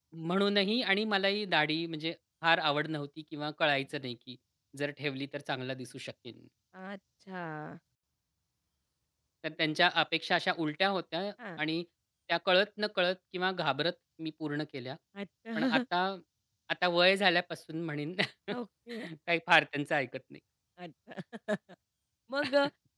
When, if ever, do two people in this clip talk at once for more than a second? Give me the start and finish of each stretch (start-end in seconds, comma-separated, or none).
none